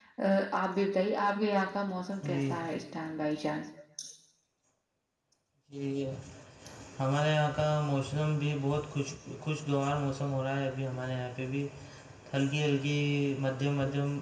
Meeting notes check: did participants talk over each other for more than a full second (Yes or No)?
No